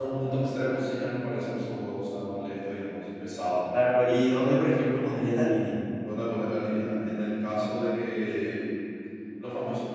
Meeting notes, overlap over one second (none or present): none